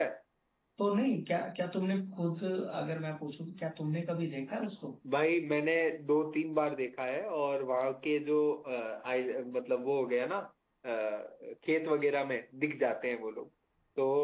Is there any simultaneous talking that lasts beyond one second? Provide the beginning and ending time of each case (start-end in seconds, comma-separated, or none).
none